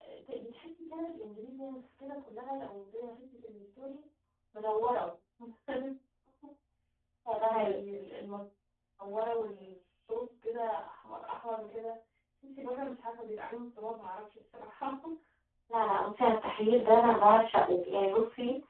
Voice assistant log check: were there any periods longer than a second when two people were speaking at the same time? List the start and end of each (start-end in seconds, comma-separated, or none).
none